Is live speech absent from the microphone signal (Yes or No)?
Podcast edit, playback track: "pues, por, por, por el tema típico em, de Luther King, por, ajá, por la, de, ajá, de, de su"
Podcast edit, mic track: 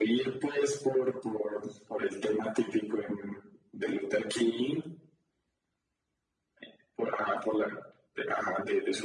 Yes